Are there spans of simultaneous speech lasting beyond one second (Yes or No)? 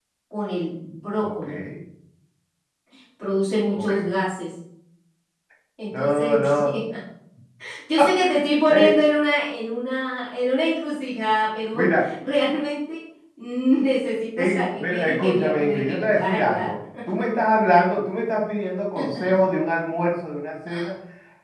Yes